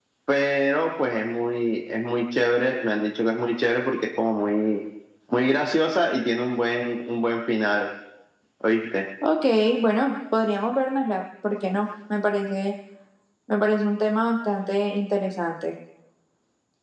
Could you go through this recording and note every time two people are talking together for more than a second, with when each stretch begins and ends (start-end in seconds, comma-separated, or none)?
none